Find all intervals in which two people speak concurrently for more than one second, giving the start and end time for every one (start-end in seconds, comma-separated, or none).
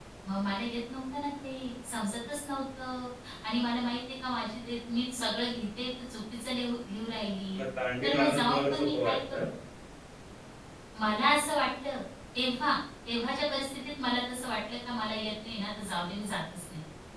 8.0-9.4